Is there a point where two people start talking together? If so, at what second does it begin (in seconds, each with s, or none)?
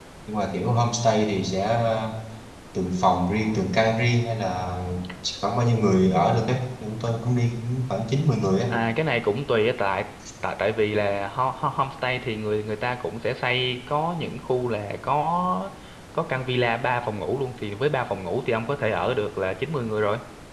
none